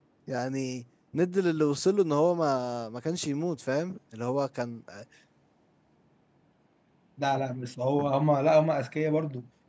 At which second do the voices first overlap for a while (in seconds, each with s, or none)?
none